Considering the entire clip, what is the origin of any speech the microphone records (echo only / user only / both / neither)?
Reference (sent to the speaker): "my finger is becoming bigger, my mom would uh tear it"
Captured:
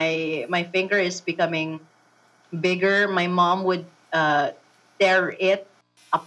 echo only